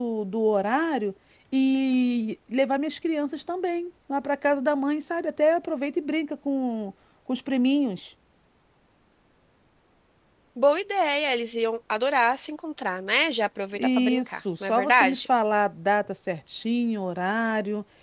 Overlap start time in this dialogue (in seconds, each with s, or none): 13.8 s